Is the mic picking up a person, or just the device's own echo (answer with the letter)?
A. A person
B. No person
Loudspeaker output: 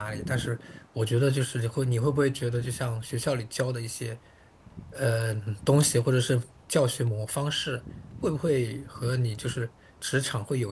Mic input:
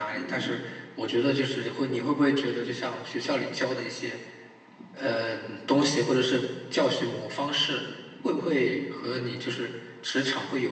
B